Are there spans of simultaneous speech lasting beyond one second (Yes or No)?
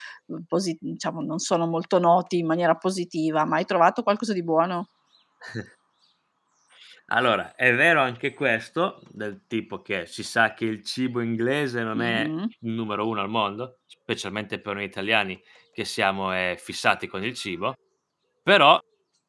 No